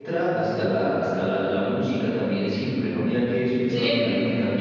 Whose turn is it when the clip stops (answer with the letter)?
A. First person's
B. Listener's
A